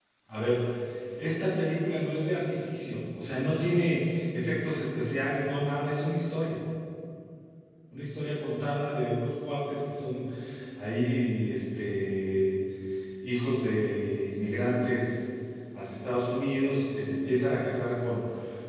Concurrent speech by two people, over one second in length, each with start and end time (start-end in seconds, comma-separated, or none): none